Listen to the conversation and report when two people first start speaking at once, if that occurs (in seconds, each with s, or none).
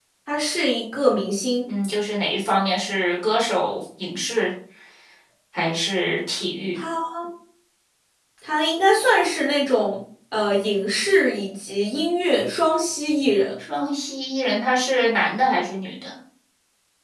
none